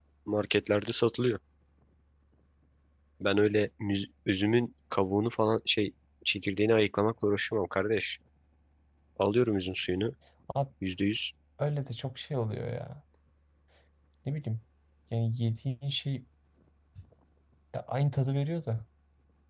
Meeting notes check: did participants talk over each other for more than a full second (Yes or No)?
No